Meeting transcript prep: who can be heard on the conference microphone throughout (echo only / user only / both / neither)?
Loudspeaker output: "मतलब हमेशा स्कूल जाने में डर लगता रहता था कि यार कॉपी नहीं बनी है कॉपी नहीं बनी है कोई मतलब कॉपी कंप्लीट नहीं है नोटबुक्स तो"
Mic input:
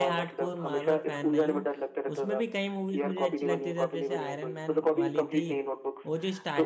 both